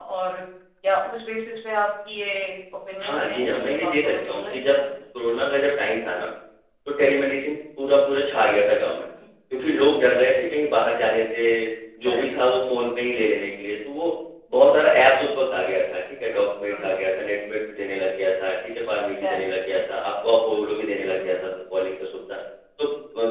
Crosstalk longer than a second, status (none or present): present